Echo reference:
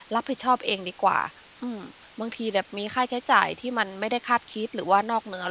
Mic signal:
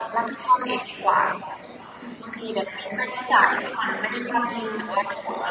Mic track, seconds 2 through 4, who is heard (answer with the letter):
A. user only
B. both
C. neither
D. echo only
D